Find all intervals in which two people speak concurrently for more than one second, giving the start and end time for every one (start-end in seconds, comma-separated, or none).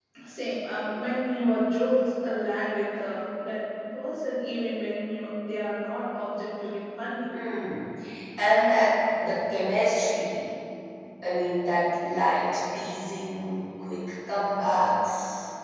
none